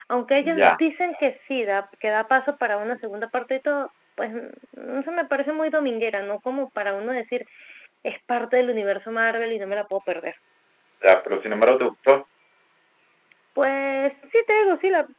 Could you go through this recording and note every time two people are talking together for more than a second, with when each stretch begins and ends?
none

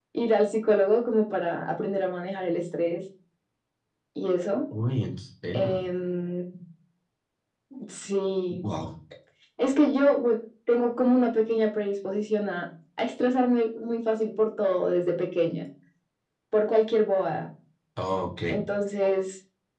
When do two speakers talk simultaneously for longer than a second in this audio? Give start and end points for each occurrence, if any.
none

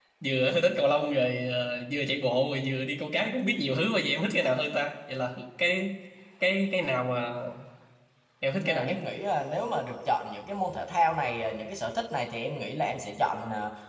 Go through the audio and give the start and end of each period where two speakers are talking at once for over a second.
none

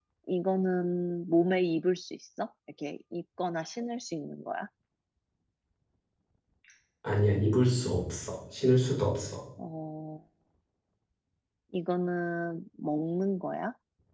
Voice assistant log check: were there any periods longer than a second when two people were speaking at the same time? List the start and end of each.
none

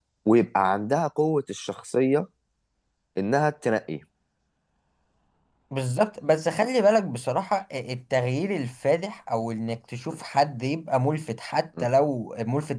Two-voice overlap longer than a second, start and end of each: none

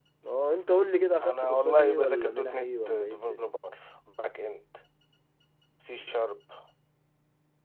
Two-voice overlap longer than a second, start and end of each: 1.2-3.5

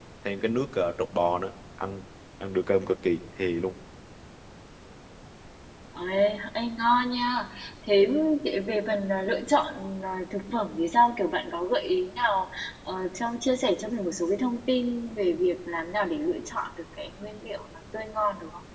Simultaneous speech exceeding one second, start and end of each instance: none

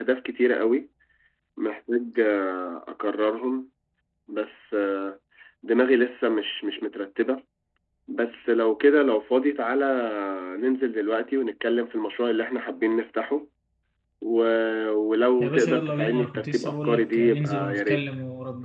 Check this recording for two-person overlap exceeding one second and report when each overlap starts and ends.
15.4-18.0

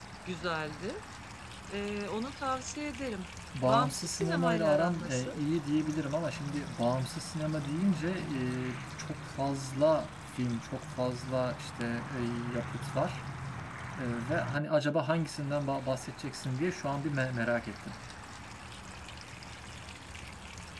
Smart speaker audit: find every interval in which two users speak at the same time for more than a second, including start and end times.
3.7-5.3

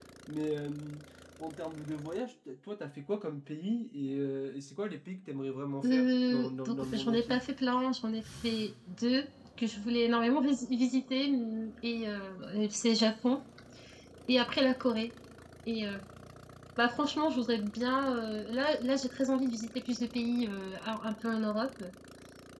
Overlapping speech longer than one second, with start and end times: 5.8-7.4

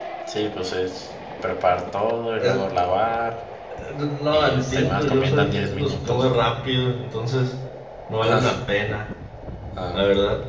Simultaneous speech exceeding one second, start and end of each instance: 4.3-6.3

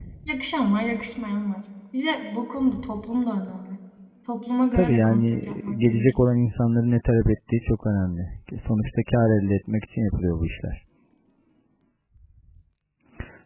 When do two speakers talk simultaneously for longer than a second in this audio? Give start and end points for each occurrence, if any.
4.7-6.1

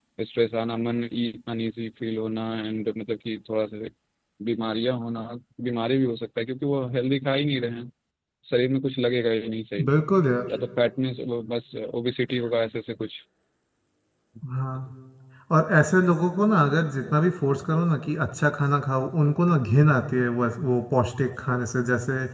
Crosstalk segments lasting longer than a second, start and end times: none

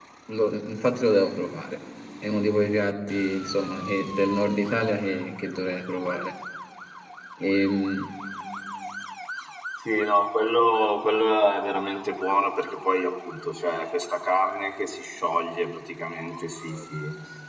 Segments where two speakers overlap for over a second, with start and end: none

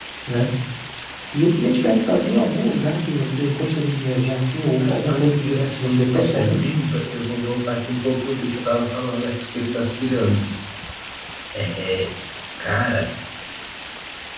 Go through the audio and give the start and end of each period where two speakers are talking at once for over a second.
4.8-6.7

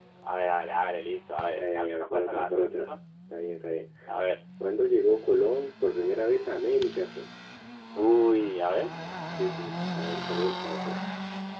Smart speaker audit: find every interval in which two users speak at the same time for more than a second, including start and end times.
1.6-2.9

